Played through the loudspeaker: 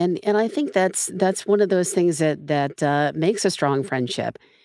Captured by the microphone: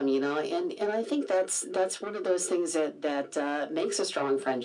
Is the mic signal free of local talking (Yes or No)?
Yes